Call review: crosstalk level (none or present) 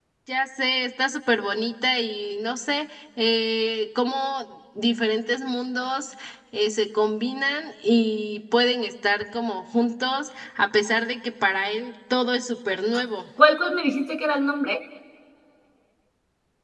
none